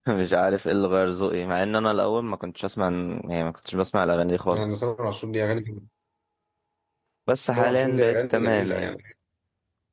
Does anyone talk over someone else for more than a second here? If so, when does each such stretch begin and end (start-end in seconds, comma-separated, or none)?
7.6-8.9